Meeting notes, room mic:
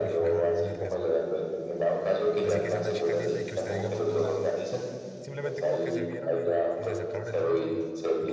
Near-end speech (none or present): present